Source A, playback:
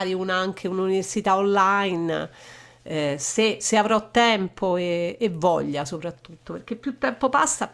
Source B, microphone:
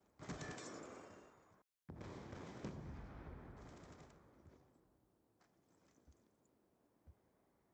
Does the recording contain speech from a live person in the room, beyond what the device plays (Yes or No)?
No